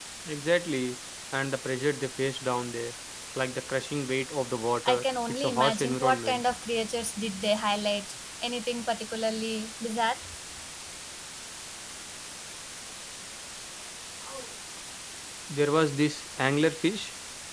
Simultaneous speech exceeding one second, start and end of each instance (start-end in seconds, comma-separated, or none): 4.8-6.4